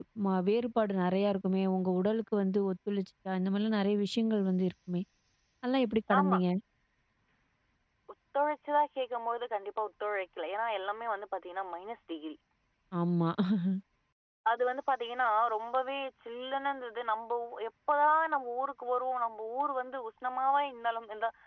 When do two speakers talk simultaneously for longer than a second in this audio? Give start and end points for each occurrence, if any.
none

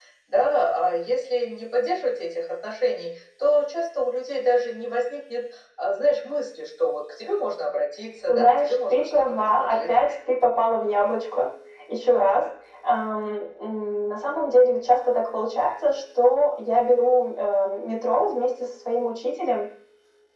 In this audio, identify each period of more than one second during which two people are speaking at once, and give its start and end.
8.3-9.9

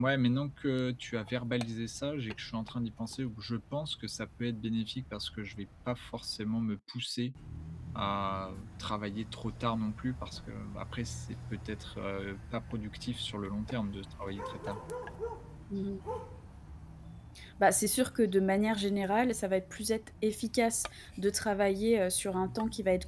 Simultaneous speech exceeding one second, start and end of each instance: none

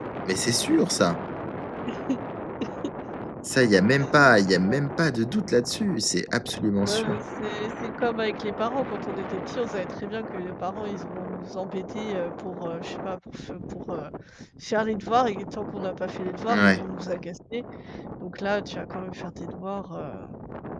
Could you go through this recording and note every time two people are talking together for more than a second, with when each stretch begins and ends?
none

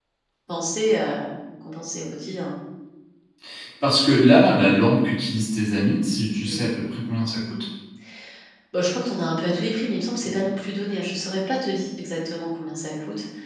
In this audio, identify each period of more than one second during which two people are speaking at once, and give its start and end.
none

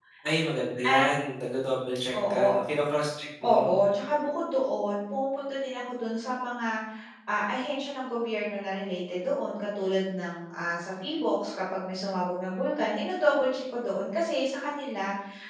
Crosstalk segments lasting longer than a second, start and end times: none

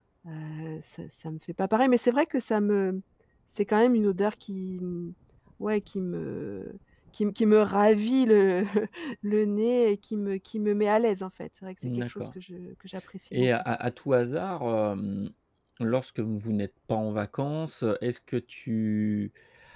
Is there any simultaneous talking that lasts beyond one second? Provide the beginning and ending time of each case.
none

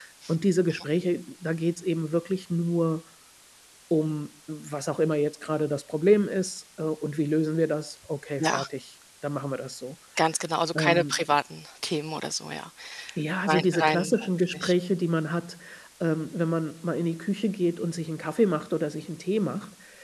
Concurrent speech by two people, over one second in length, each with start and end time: 13.5-14.7

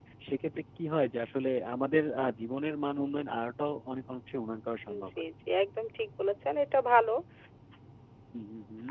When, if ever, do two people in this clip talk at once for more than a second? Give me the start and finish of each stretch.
none

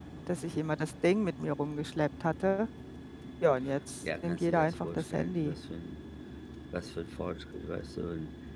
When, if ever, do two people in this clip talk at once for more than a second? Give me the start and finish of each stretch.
4.2-5.5

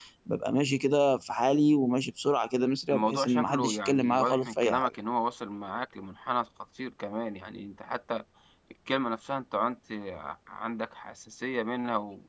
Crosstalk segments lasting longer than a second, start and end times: 2.9-4.9

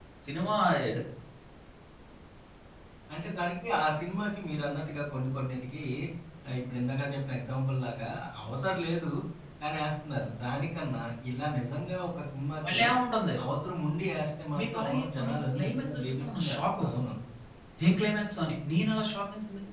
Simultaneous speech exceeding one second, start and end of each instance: 14.6-17.0

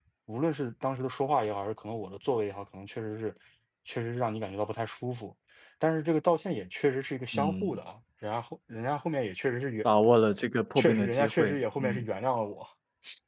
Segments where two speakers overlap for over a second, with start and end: 10.8-12.1

